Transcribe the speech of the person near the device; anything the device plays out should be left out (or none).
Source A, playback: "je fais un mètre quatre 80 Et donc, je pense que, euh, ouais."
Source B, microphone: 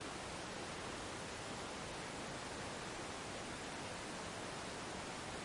none